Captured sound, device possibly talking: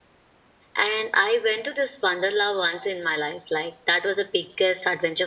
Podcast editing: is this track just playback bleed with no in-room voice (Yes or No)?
No